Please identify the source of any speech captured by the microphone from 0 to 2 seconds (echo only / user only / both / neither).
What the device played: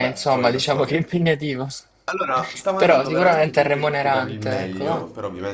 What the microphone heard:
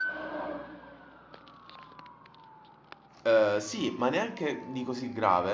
neither